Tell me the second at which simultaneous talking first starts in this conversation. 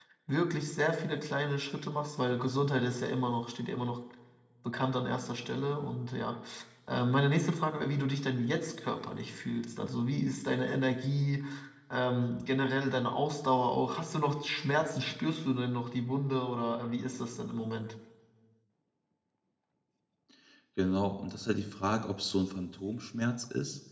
none

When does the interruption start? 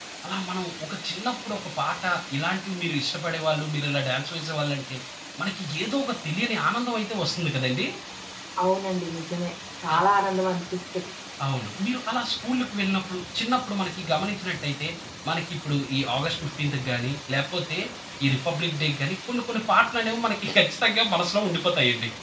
none

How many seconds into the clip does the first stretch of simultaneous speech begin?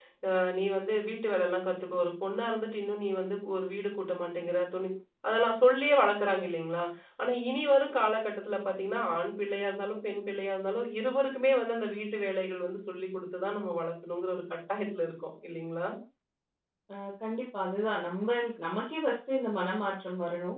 none

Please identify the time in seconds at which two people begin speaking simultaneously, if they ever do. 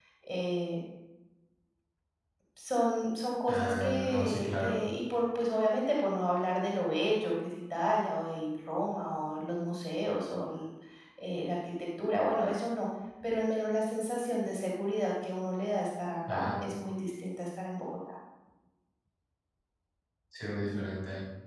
3.5 s

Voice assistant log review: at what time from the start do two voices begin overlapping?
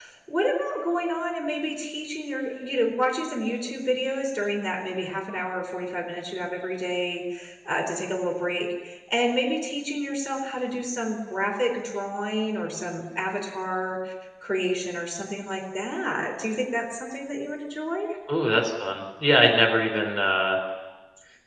none

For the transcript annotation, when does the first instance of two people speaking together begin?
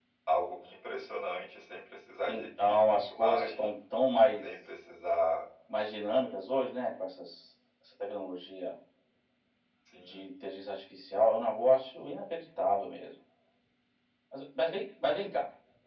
2.3 s

